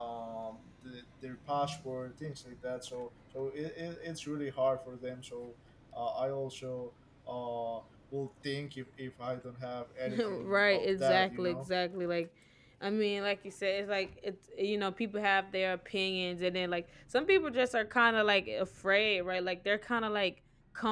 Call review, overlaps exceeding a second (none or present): present